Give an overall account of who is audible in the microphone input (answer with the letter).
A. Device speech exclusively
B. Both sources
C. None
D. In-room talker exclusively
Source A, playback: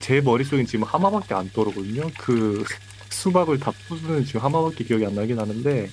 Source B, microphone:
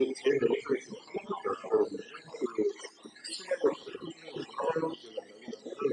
A